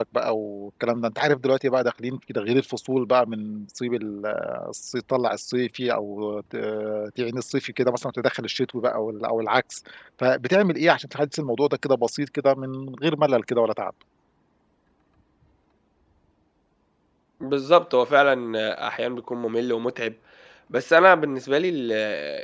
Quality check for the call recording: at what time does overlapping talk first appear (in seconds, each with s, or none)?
none